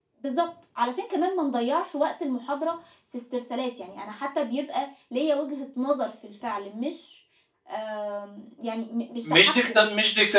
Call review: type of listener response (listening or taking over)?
taking over